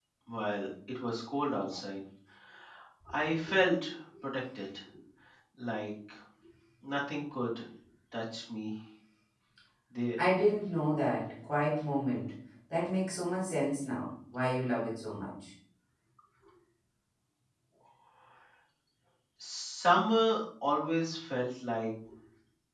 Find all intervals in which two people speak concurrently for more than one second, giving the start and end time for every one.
none

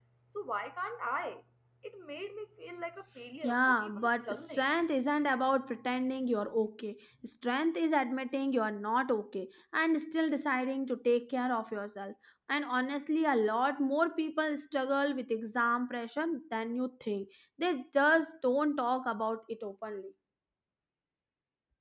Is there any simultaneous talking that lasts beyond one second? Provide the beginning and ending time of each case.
3.4-4.6

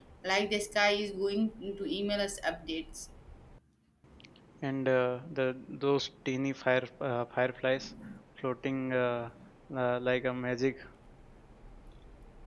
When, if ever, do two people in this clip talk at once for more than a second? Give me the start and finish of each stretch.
none

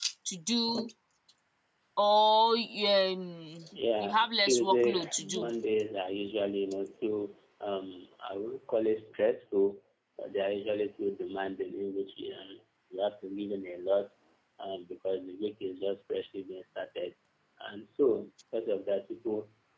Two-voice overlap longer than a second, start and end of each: 4.0-5.5

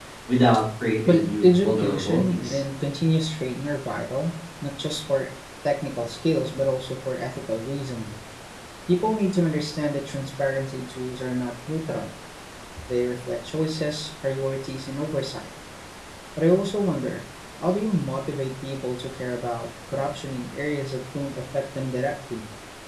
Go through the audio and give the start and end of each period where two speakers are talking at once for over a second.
1.1-2.6

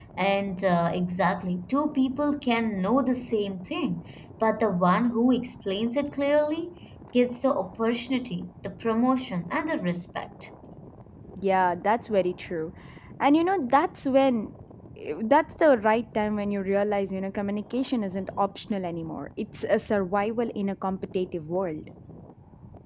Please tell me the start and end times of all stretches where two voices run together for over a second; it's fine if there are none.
none

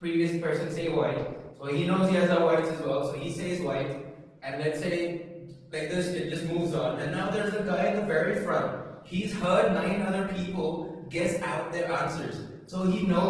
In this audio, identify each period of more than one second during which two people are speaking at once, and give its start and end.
none

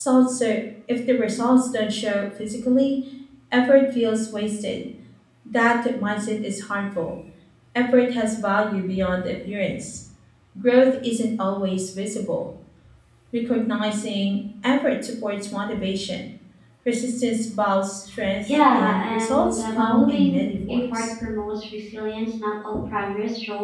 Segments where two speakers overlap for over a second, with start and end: 18.7-21.0

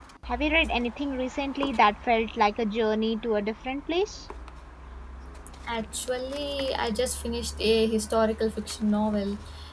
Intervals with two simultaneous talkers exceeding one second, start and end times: none

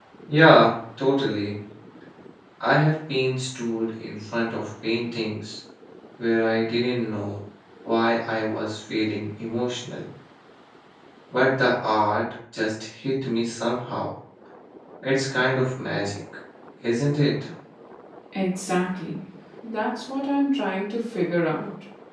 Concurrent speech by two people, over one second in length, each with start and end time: none

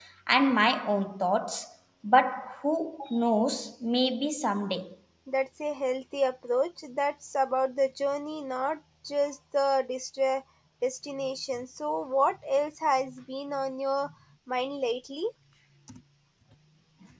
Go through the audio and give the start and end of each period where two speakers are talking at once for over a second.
none

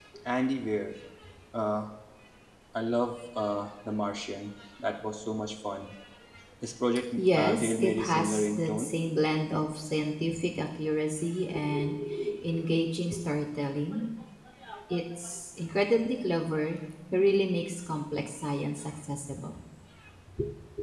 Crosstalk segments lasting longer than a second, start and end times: 7.2-8.9

